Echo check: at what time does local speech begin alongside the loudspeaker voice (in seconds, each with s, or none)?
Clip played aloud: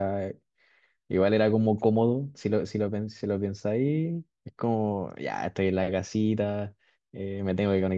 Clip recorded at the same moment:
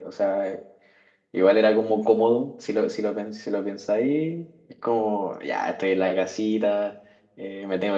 none